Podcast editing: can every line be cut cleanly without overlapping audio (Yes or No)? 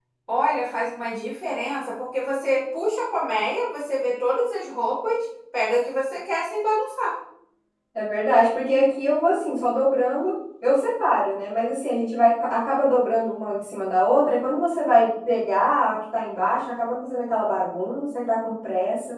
Yes